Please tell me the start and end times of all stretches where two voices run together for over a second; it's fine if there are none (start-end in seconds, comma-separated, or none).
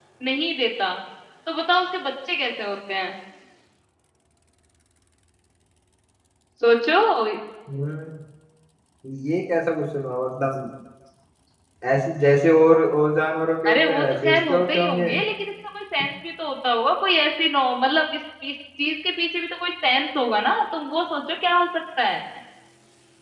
13.7-15.1